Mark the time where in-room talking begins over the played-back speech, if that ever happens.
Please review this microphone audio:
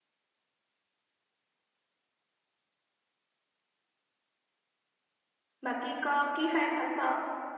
5.6 s

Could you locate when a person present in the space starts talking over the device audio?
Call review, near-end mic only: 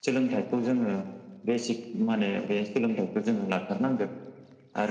none

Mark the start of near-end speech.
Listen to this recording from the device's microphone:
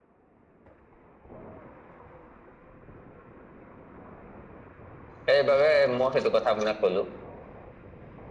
5.2 s

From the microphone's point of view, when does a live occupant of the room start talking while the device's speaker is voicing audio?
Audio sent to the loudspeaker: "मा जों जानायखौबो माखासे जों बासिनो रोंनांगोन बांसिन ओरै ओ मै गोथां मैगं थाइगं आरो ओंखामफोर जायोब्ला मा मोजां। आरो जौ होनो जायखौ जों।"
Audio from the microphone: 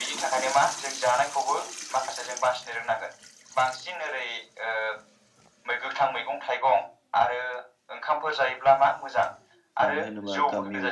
9.8 s

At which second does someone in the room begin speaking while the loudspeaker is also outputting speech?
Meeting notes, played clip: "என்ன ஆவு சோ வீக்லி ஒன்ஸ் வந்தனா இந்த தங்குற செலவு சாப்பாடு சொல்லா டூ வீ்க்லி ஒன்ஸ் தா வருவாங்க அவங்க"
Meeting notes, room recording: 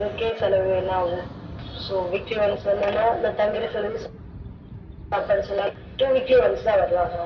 none

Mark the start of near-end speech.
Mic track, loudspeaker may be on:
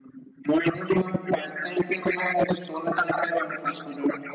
none

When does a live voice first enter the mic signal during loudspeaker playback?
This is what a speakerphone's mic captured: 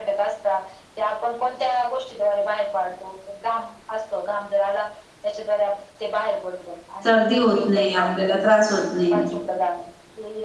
7.0 s

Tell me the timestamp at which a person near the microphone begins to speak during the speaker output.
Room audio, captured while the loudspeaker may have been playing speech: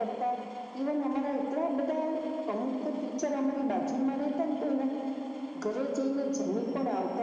none

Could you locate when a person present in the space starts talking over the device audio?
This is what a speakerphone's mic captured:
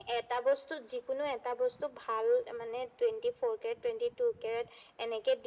none

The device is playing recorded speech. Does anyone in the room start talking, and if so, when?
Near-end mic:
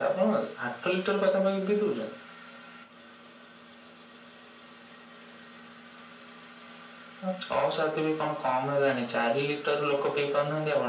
none

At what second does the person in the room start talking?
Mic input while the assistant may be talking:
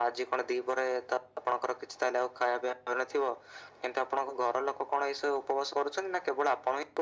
none

